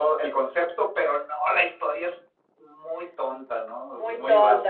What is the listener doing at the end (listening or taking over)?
taking over